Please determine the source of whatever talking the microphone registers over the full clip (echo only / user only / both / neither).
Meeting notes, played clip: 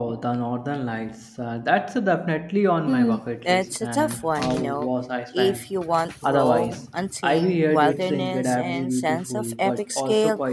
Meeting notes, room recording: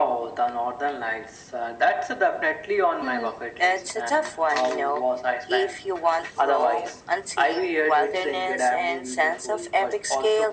echo only